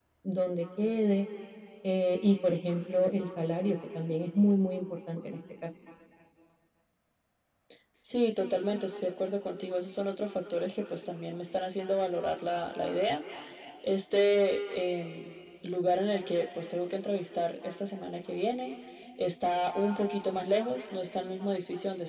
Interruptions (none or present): none